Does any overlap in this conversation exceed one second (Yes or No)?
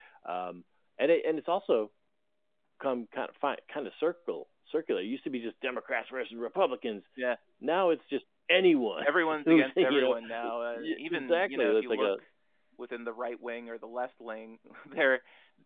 Yes